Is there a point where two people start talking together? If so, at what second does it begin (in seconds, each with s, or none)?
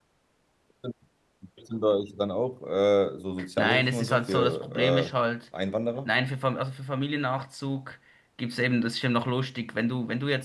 3.6 s